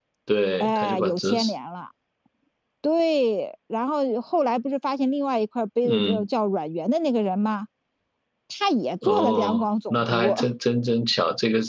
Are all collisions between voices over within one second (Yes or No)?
No